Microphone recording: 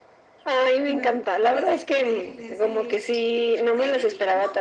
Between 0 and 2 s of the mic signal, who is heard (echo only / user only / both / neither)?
both